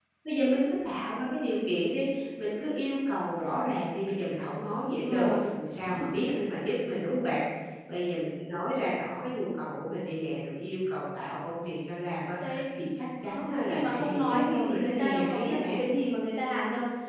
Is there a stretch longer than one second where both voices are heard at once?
Yes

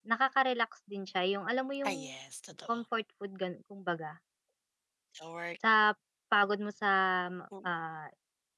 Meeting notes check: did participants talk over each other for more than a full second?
No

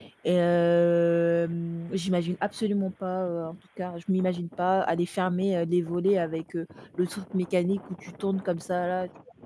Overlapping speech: No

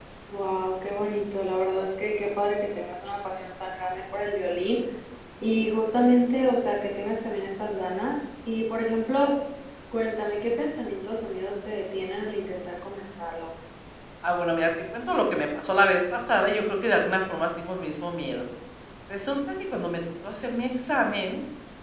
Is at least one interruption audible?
No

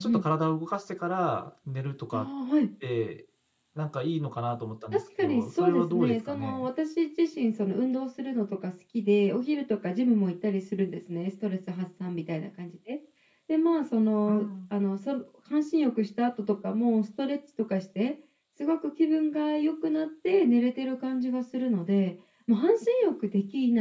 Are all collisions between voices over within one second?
No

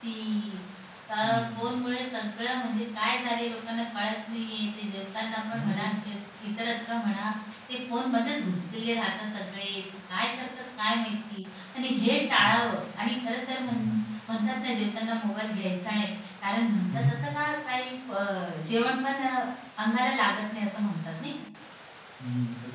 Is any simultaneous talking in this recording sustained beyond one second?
No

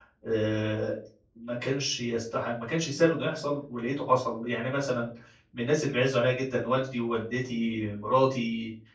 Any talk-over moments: No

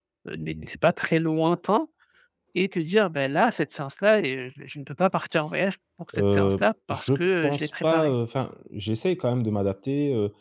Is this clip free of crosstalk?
No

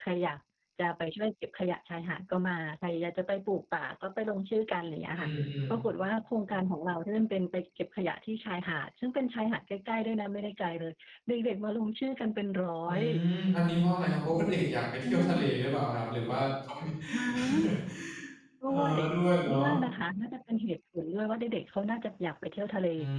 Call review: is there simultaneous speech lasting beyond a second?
No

